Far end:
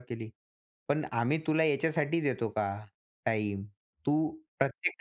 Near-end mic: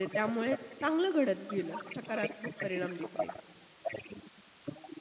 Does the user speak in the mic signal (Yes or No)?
Yes